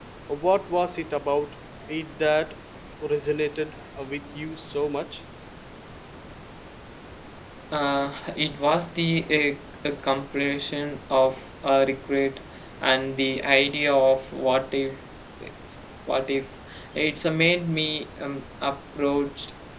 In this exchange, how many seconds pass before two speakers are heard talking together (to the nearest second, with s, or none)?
none